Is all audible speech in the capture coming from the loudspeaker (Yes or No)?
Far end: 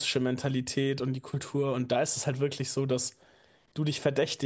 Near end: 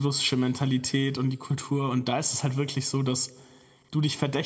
Yes